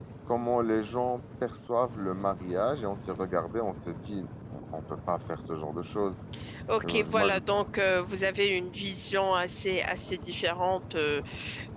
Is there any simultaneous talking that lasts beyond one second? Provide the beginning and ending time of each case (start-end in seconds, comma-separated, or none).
none